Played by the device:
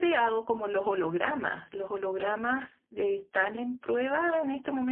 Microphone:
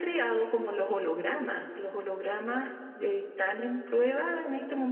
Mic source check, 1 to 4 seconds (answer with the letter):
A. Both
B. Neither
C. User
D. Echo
D